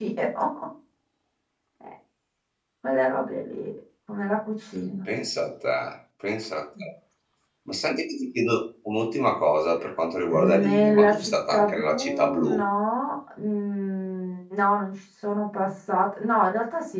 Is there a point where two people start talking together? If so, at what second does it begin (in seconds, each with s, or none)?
10.3 s